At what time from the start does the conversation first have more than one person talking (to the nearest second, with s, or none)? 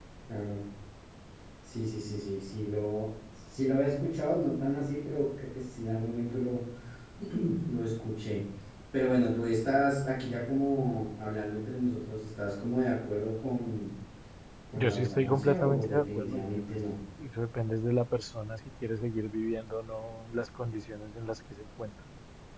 15 s